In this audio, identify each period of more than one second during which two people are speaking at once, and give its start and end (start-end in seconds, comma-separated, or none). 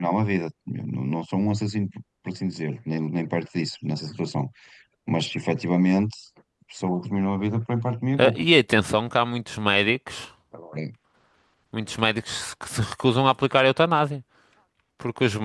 none